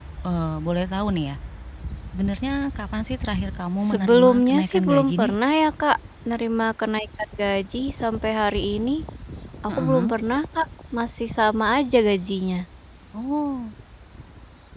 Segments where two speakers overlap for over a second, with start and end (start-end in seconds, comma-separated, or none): 3.9-5.3